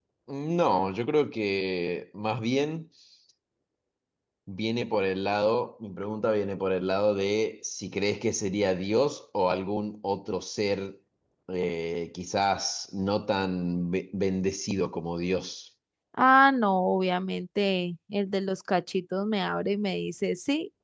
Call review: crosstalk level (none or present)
none